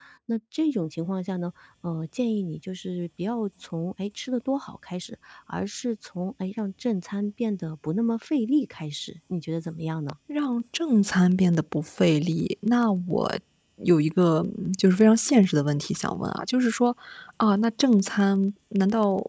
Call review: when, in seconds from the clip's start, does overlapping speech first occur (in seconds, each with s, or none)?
none